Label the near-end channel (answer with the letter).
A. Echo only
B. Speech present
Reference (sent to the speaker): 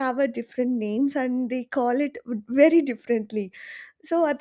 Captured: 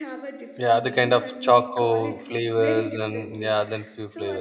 B